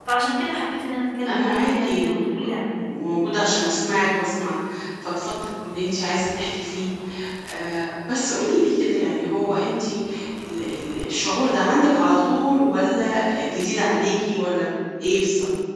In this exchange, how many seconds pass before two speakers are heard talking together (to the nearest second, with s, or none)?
1 s